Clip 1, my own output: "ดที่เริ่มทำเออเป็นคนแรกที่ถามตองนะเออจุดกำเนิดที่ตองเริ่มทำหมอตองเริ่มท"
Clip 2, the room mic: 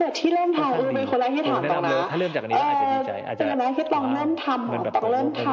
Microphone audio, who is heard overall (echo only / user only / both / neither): both